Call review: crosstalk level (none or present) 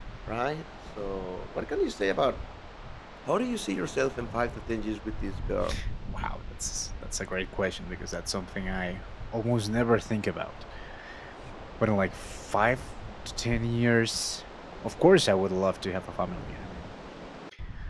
none